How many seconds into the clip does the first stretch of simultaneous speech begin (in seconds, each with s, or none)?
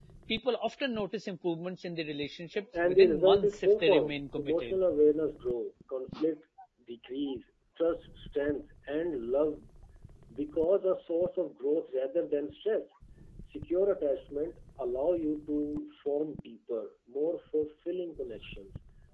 2.7 s